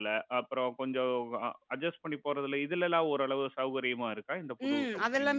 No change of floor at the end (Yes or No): No